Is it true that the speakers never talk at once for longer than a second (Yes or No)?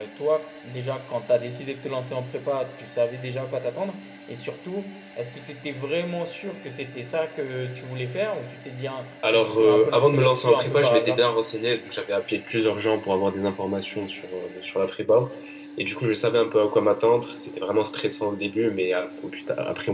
No